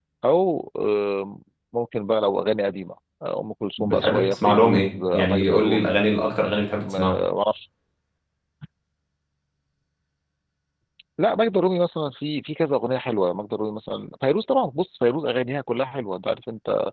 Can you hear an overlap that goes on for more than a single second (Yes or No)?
Yes